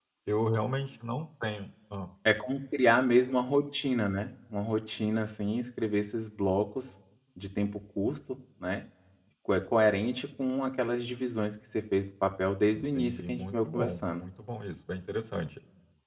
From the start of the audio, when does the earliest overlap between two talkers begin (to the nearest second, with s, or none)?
13 s